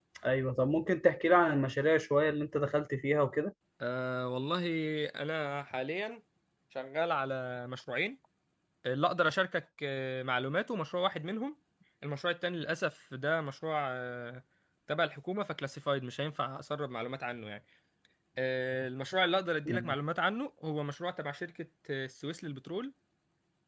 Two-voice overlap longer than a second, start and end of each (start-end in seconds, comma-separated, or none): none